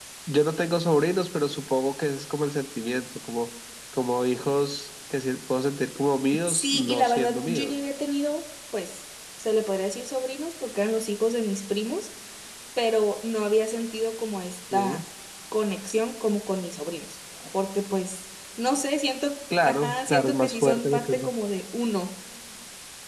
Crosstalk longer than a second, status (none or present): present